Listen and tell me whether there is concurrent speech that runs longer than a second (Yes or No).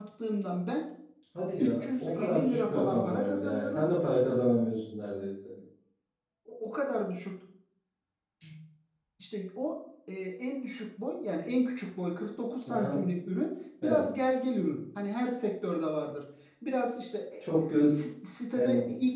Yes